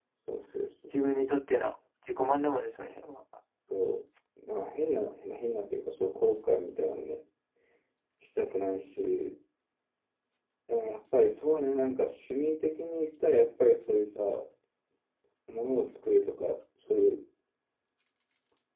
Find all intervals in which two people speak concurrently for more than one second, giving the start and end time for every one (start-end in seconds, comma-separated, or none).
none